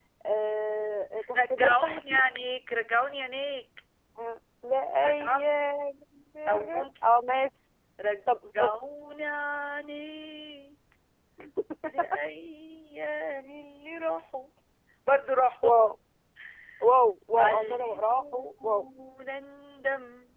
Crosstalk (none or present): present